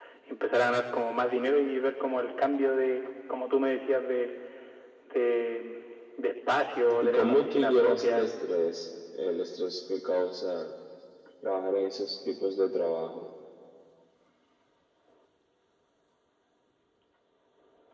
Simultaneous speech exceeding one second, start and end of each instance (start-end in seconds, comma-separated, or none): 7.0-8.3